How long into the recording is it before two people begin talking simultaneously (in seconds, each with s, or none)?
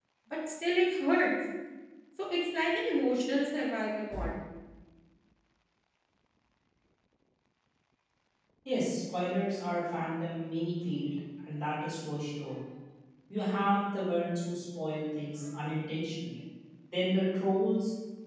none